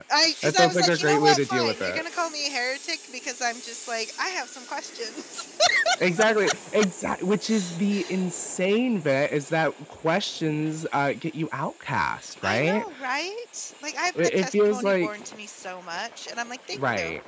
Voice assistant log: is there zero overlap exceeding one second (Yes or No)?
No